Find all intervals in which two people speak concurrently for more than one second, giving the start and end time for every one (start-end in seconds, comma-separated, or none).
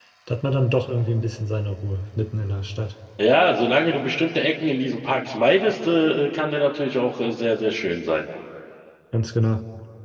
none